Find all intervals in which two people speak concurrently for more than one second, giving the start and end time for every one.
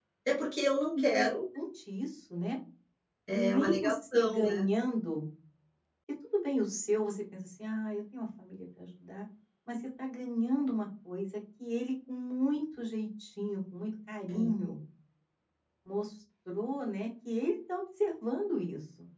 3.3-4.6

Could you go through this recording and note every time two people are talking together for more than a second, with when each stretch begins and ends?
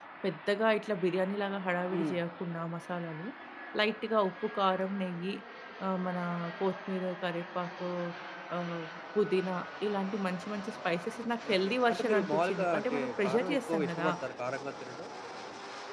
11.5-14.1

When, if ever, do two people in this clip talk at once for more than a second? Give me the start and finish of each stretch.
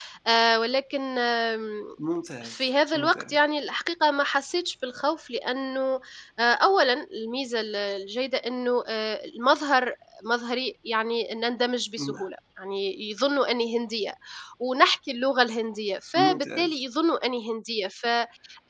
none

